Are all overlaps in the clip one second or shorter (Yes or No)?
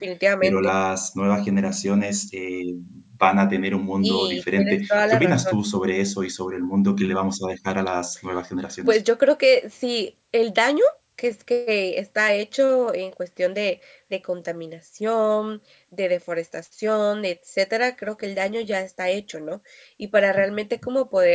No